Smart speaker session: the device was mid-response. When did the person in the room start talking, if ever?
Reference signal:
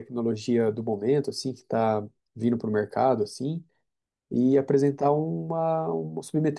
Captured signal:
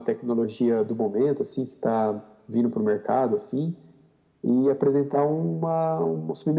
none

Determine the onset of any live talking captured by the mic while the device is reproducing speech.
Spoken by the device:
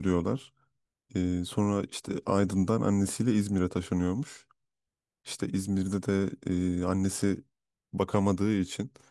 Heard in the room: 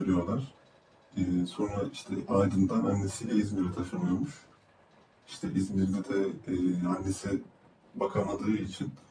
none

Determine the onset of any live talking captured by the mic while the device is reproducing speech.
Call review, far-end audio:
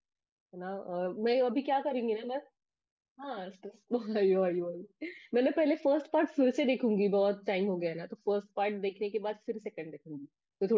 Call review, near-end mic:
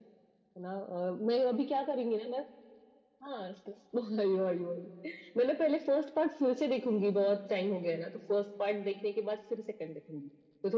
none

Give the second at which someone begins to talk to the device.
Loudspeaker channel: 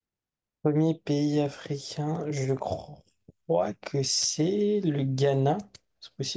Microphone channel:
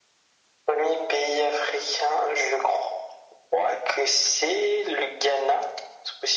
none

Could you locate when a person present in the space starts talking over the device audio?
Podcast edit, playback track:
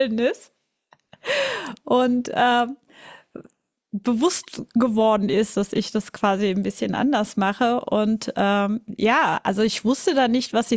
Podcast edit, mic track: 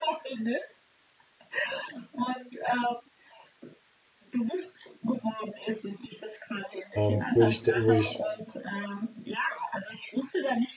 7 s

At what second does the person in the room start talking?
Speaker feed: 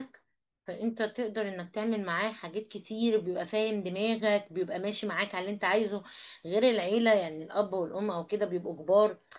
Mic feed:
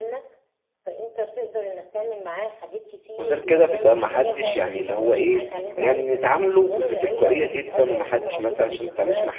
3 s

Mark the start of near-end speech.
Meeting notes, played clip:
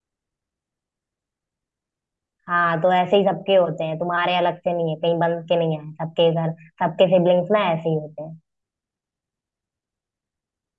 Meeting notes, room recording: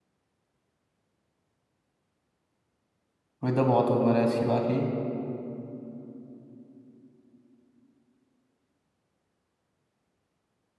3 s

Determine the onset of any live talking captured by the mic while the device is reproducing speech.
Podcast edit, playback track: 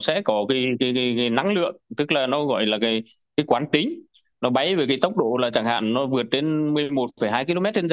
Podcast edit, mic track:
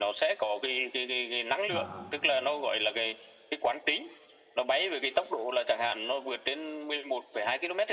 2 s

